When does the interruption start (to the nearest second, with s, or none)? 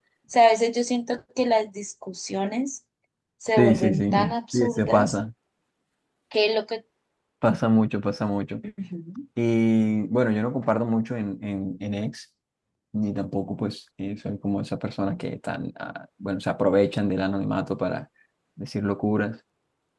4 s